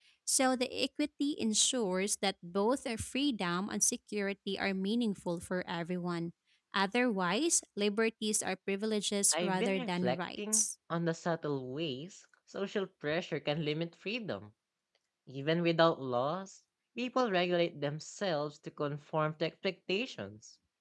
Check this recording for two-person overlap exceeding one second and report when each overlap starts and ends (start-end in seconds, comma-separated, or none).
9.3-10.6